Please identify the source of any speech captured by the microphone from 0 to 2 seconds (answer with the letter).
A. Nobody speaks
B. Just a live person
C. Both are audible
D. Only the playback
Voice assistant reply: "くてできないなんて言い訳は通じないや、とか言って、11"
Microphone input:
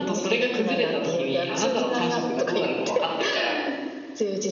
C